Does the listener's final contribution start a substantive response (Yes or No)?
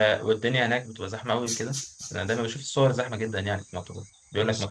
No